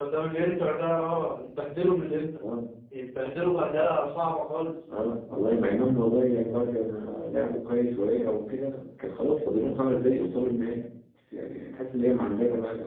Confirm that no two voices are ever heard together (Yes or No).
Yes